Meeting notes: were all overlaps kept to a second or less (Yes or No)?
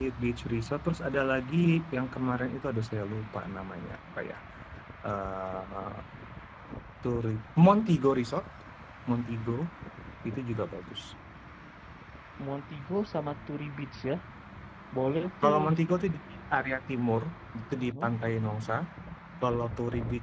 Yes